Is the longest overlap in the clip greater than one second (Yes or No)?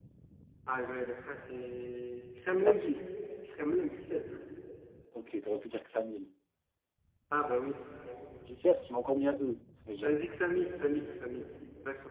No